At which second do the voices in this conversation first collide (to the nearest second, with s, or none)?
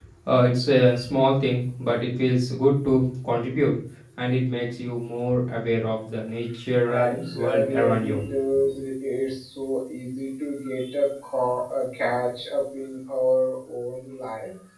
7 s